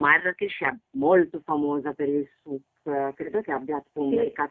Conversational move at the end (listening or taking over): listening